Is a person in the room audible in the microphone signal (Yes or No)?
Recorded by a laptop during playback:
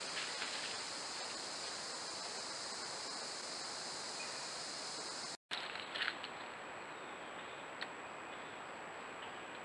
No